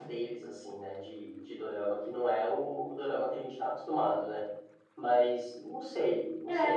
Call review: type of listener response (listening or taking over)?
taking over